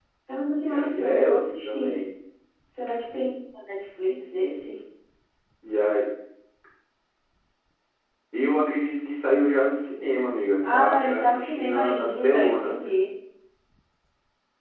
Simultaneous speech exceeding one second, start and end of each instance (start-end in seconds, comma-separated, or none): 0.6-1.9, 10.6-12.9